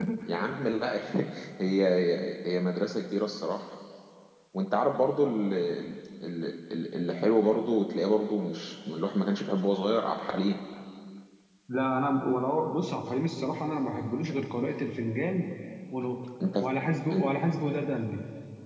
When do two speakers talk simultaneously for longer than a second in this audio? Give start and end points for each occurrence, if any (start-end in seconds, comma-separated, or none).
none